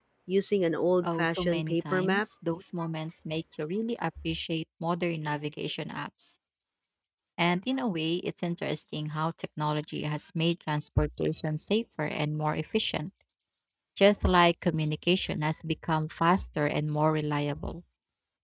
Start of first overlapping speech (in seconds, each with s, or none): 1.0 s